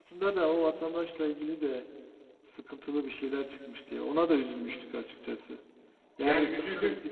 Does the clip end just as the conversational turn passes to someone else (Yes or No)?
No